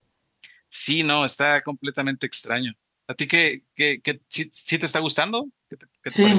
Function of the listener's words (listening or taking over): taking over